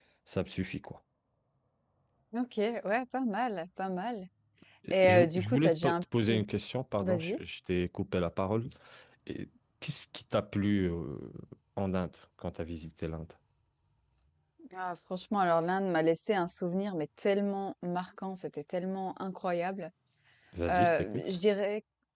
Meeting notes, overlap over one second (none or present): present